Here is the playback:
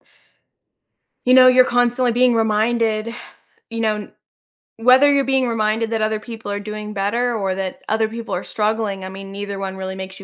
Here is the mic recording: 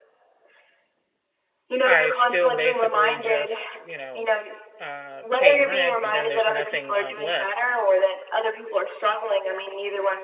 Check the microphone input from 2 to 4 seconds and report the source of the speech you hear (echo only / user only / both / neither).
both